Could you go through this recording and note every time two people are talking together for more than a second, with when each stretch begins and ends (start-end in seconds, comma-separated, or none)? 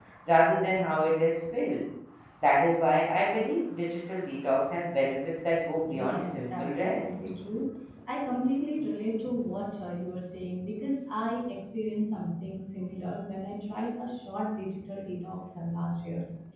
5.9-7.2